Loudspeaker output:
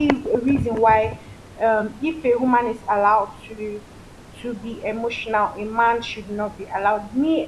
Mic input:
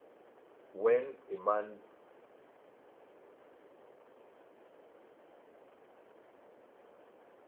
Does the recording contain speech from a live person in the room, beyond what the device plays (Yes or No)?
Yes